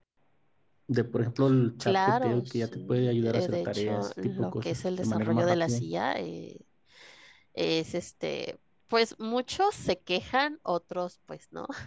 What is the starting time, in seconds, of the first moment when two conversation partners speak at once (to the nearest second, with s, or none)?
2 s